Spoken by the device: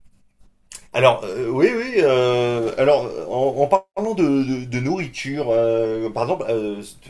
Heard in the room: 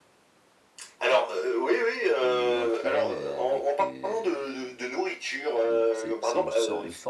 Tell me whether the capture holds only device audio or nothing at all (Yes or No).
No